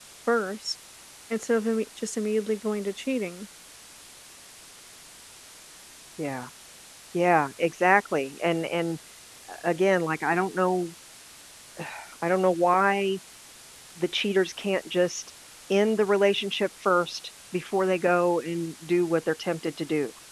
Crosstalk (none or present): none